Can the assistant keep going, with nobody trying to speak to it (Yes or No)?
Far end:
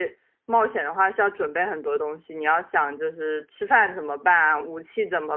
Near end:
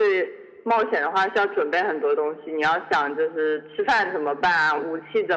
Yes